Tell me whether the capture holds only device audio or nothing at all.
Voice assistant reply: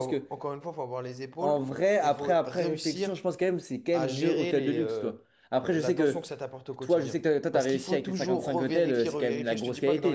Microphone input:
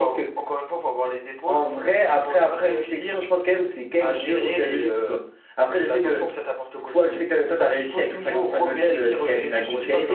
Yes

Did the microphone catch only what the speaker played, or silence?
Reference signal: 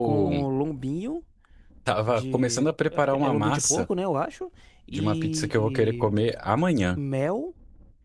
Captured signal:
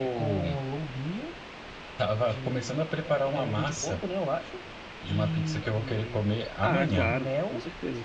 No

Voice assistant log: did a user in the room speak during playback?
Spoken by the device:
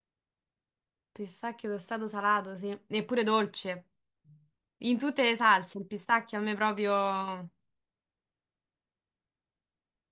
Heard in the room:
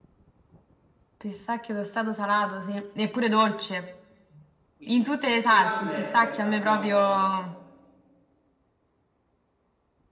Yes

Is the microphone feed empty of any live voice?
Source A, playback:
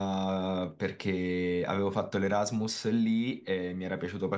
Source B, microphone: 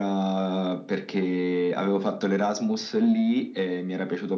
Yes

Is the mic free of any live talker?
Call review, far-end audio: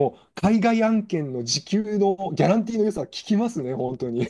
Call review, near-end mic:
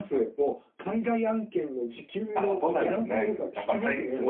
No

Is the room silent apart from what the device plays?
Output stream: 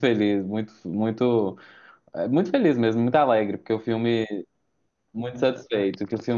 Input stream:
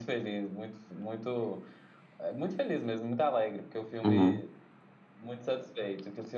No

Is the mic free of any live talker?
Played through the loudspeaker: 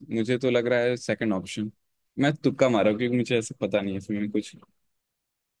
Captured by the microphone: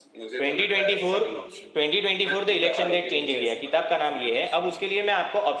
No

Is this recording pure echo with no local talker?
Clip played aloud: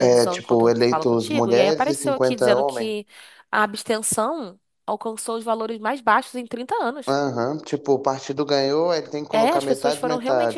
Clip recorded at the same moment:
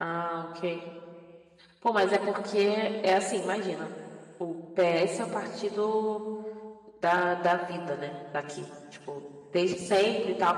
No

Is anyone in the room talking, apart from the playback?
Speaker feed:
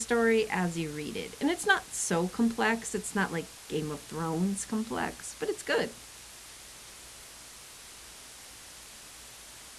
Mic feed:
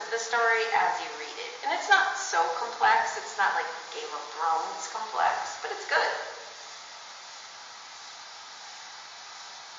No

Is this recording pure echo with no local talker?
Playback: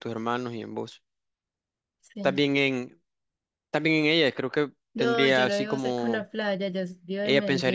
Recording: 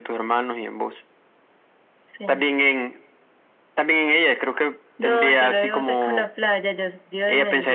Yes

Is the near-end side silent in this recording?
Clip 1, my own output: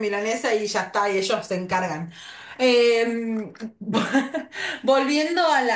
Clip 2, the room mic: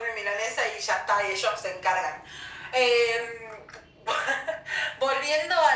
Yes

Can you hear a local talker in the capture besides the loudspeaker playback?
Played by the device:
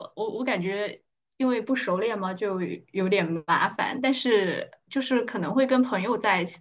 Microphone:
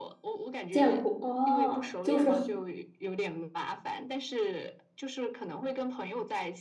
Yes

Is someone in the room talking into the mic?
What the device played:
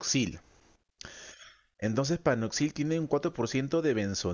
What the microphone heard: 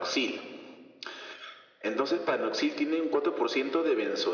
No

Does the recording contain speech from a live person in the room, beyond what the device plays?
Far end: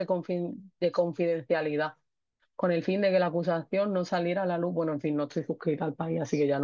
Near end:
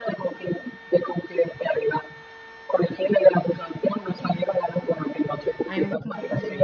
Yes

